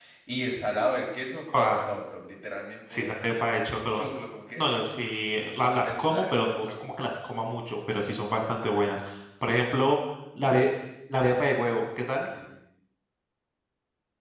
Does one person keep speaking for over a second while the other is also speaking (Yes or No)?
Yes